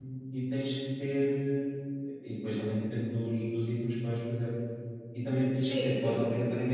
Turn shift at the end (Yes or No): No